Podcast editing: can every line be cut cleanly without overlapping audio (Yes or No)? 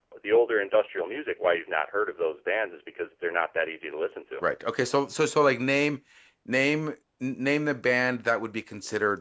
Yes